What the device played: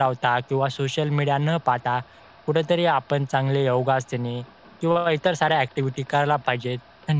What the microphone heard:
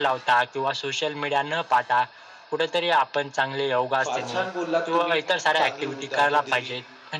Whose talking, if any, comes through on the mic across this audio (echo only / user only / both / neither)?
both